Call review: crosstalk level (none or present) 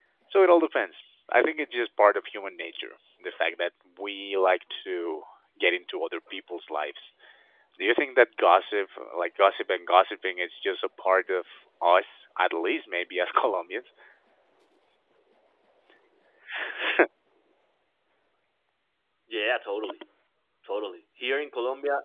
none